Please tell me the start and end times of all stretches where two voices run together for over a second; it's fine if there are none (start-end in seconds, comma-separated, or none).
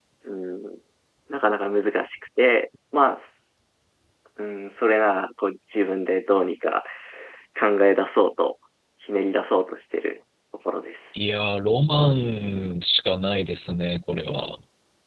none